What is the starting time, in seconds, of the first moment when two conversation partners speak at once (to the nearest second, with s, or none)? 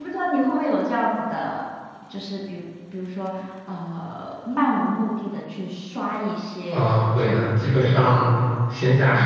7 s